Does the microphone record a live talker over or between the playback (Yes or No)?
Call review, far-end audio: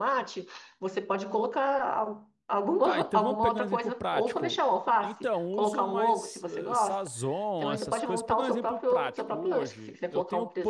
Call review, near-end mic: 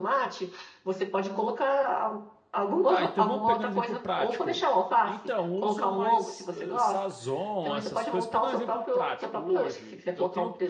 No